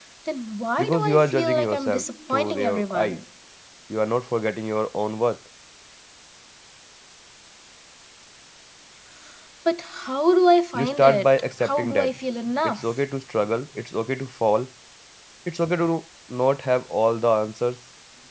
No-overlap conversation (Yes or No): No